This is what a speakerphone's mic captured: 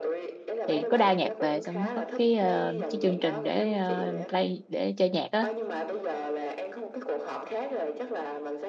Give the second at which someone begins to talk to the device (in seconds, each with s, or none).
0.6 s